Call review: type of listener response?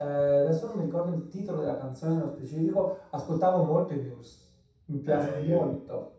taking over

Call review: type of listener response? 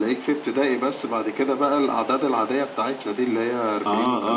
taking over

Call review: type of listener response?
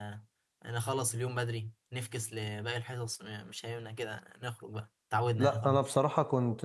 taking over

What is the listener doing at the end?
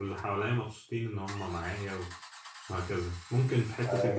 taking over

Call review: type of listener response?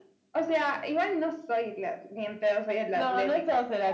taking over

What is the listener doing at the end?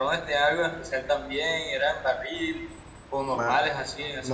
taking over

